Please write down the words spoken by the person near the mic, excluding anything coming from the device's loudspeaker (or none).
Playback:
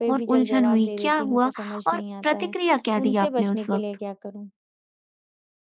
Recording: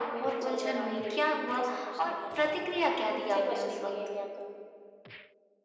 none